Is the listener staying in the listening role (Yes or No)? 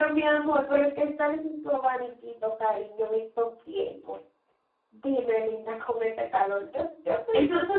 No